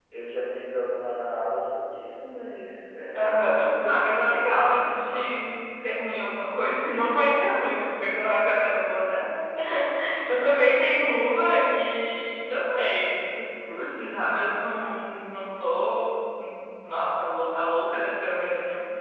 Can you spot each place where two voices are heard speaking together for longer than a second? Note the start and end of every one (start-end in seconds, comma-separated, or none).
3.1-5.5